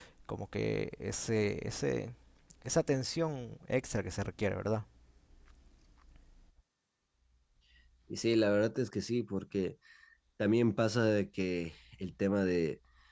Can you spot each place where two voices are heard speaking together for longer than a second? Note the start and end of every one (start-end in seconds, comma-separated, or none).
none